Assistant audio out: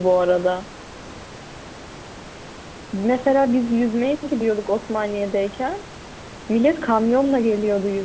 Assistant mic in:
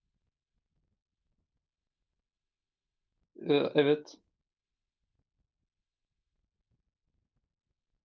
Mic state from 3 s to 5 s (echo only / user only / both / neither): user only